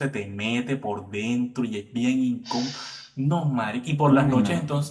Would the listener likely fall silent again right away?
Yes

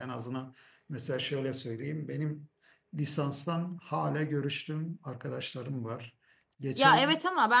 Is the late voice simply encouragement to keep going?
No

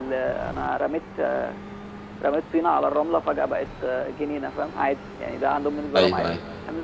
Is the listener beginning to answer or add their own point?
Yes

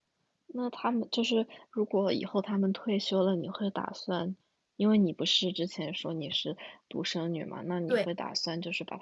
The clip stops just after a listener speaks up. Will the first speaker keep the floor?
Yes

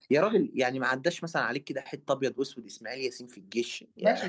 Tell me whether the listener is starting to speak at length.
Yes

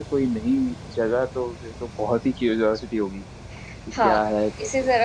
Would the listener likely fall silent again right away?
No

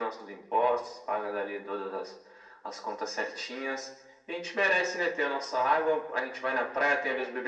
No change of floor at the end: Yes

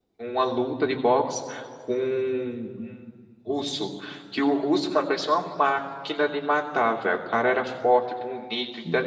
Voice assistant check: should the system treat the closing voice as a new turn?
Yes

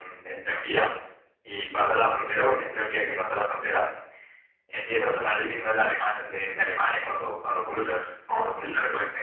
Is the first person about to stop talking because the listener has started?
No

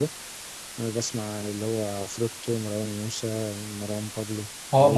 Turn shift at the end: Yes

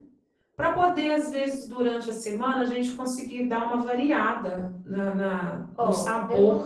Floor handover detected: Yes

